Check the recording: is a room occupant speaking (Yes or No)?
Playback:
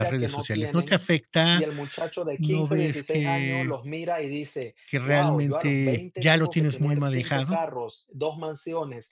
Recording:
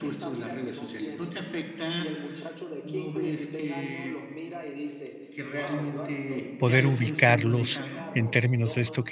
Yes